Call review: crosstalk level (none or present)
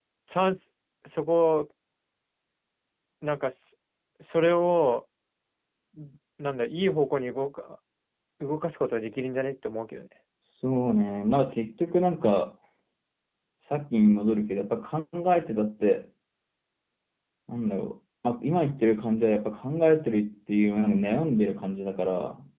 none